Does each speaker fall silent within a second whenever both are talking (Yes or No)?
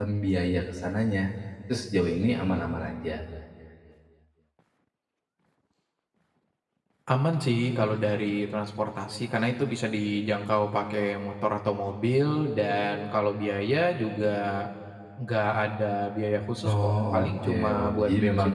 No